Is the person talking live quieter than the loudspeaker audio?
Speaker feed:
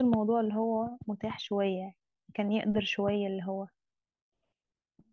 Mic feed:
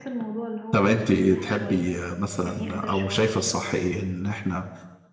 No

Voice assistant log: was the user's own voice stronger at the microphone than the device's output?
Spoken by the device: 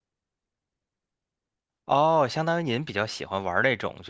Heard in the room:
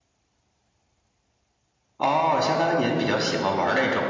No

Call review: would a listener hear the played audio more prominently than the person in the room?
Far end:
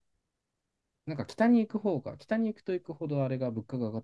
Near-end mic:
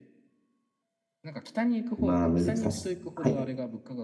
No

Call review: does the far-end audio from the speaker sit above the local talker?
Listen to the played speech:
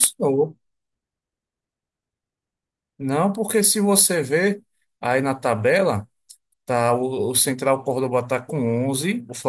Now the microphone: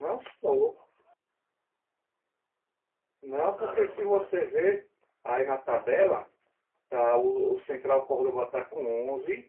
Yes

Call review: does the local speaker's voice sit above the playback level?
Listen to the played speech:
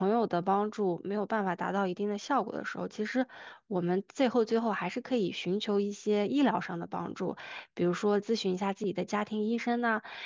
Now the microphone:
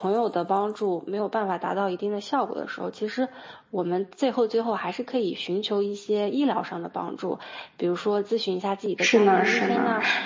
Yes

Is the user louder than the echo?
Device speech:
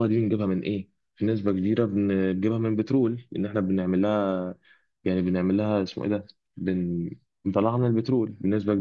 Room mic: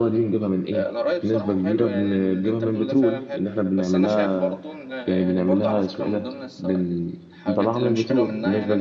No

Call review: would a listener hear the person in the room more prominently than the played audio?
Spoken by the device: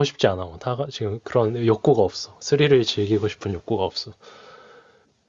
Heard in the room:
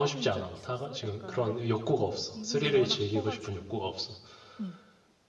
No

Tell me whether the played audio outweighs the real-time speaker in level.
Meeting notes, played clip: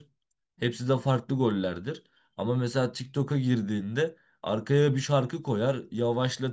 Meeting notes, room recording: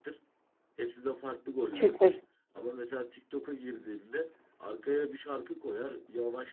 No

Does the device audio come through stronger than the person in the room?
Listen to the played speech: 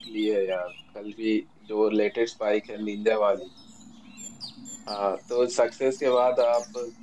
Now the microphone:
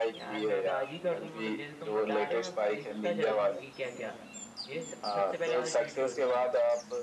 Yes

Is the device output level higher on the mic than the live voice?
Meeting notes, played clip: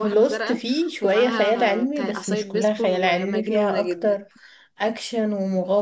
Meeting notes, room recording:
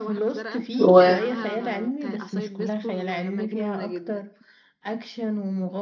No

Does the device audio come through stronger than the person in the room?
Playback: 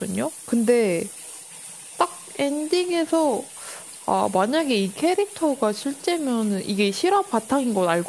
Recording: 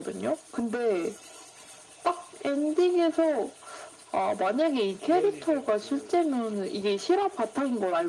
Yes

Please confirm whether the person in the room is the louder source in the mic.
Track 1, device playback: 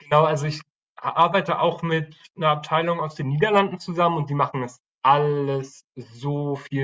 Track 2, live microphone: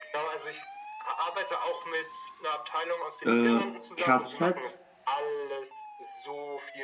Yes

